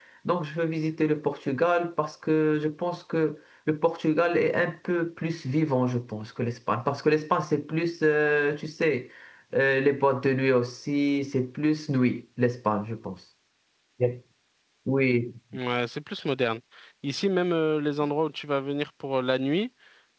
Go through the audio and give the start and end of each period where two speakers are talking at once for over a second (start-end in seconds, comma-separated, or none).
none